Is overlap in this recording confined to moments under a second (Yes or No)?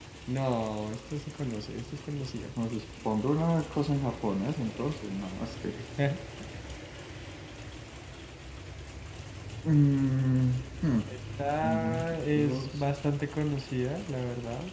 No